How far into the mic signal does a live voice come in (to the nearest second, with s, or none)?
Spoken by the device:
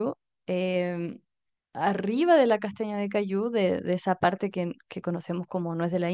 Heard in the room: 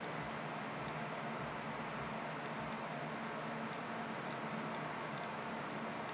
none